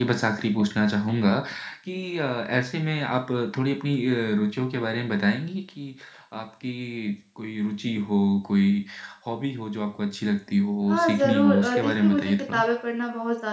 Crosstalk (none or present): present